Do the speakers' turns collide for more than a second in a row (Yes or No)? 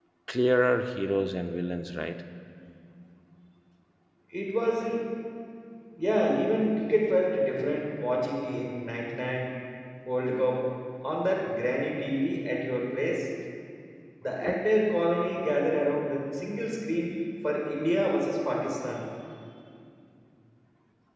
No